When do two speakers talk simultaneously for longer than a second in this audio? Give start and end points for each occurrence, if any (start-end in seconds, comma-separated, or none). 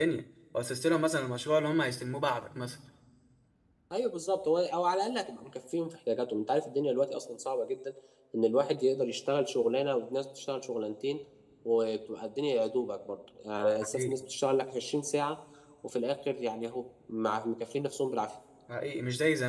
none